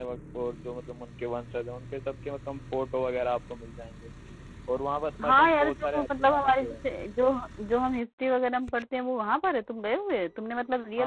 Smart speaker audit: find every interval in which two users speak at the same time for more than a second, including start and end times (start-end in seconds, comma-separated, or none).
5.2-6.7